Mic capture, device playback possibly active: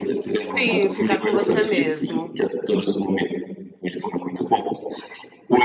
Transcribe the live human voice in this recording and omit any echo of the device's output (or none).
Sim, ficar com você mesmo.